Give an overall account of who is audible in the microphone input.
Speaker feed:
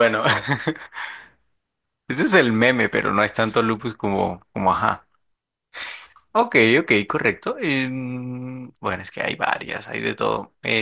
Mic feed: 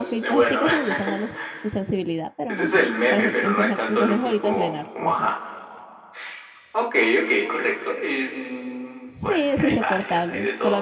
both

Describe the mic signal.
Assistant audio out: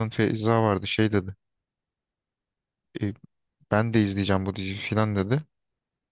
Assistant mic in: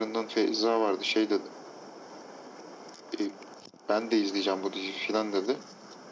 echo only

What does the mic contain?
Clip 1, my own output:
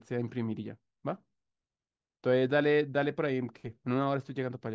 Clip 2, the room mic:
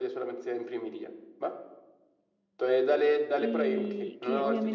both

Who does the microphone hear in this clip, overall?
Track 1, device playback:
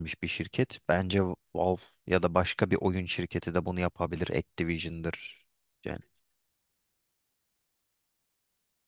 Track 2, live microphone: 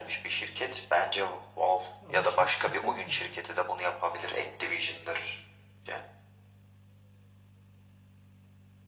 both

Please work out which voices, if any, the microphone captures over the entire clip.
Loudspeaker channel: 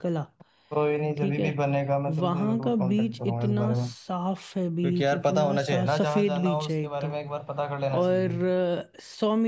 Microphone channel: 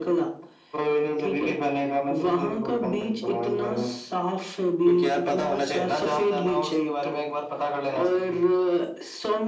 echo only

